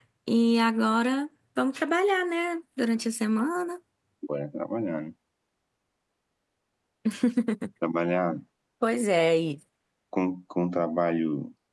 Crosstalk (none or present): none